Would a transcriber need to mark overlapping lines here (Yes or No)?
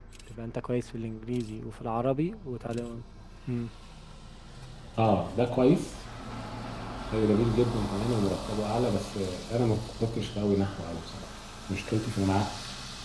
No